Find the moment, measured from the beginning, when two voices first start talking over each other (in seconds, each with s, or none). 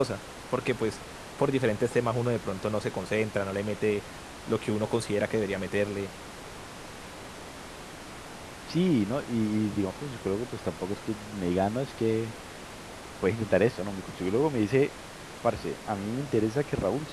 none